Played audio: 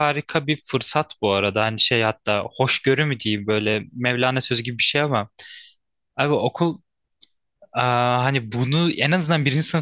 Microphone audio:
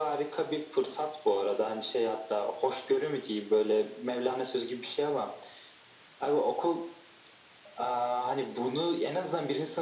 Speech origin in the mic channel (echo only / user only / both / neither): echo only